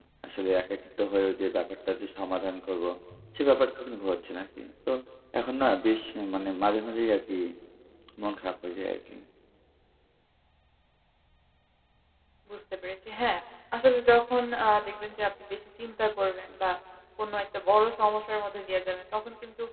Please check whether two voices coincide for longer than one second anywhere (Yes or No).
No